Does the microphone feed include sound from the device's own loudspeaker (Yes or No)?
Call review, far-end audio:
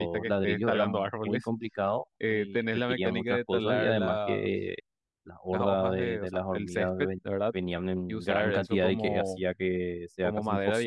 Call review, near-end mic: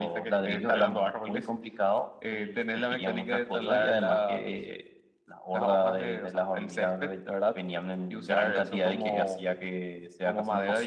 Yes